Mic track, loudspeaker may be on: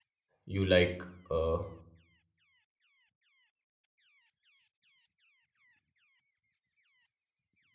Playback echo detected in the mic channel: No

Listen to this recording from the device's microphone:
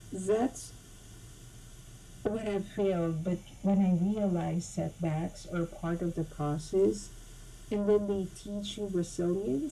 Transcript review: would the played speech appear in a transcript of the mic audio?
Yes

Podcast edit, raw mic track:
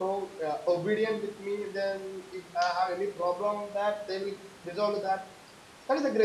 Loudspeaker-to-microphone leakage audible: No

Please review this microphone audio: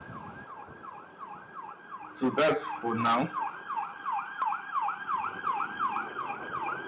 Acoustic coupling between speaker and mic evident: No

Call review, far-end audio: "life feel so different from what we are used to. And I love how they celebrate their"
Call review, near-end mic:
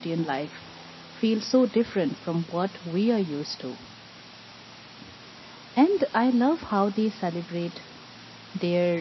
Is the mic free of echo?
No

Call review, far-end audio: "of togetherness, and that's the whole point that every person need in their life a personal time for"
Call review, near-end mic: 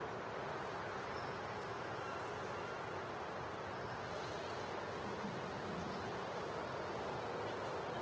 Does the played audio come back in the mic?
No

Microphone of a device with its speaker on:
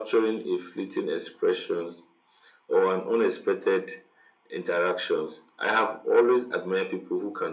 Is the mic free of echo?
No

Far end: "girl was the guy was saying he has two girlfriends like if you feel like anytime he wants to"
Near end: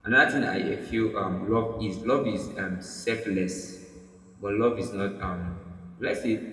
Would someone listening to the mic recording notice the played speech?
No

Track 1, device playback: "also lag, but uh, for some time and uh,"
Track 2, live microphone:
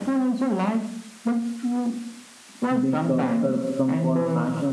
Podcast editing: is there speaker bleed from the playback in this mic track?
Yes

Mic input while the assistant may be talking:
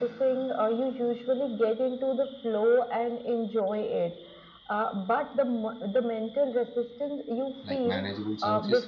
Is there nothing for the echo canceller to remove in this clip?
No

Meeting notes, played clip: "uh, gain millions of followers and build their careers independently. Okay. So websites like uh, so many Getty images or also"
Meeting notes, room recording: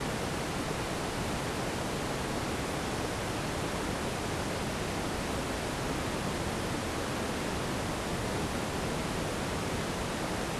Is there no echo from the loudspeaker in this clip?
Yes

